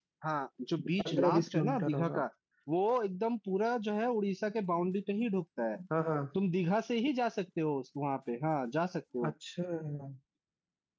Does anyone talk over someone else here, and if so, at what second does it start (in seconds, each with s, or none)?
1.0 s